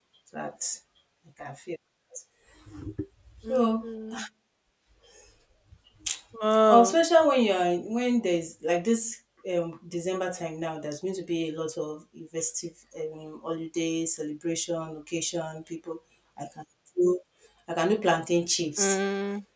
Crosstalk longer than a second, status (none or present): none